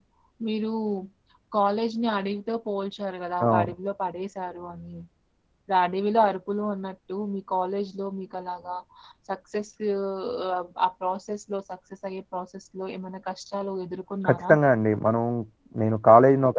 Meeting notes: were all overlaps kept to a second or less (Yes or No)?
Yes